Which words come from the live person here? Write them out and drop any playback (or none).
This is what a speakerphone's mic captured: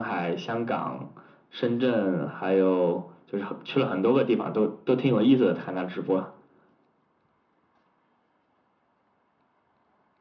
none